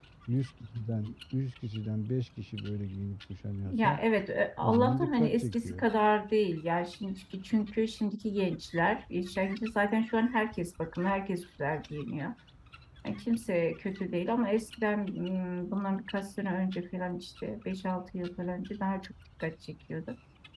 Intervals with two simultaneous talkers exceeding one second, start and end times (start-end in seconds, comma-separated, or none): 4.6-5.8